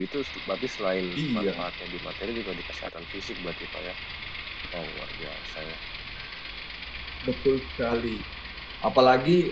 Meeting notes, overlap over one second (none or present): none